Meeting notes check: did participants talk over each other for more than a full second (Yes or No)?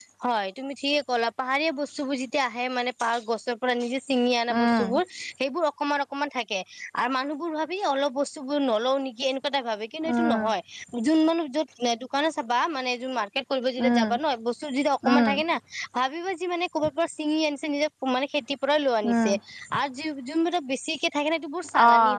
No